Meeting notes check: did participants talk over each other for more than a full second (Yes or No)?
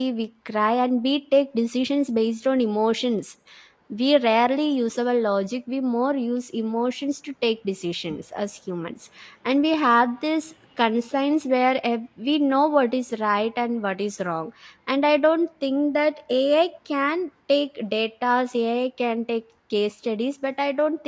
No